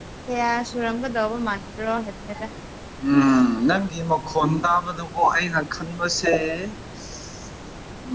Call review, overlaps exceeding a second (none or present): none